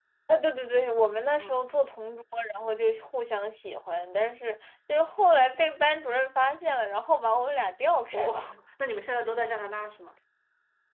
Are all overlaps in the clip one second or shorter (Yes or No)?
Yes